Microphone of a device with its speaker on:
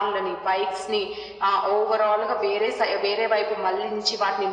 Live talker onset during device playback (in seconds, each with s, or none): none